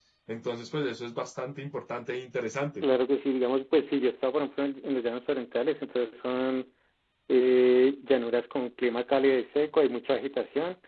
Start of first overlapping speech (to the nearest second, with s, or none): none